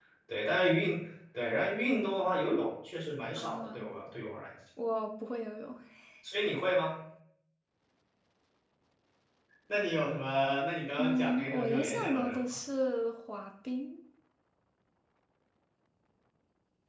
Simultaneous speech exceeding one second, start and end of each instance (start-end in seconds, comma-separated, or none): 11.0-12.4